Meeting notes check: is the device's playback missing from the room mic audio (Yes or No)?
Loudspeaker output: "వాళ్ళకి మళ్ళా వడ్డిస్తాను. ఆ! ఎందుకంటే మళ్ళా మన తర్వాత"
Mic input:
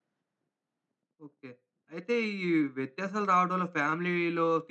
Yes